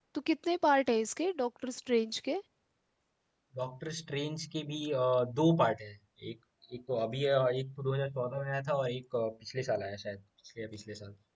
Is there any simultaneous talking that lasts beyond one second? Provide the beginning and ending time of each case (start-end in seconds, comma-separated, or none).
none